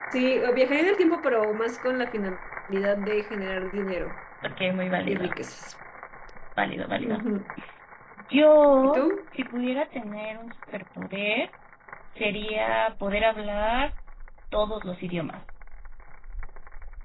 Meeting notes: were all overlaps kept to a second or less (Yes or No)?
Yes